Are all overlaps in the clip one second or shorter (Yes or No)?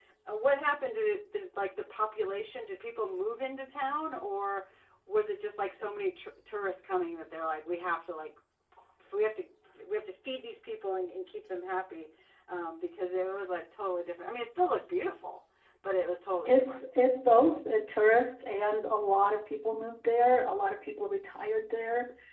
Yes